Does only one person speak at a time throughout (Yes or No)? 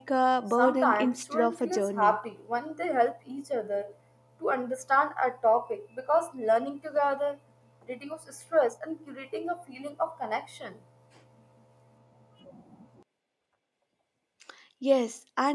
No